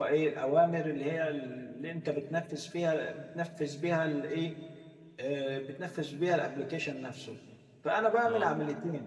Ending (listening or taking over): listening